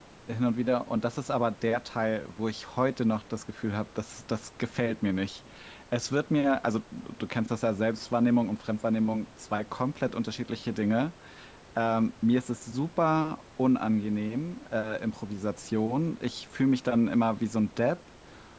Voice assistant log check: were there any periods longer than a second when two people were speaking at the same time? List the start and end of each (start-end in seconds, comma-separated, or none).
none